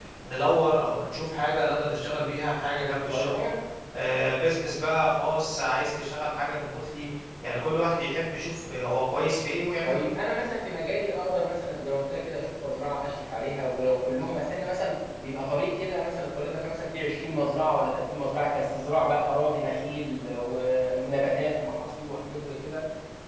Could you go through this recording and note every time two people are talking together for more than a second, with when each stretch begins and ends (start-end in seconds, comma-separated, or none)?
none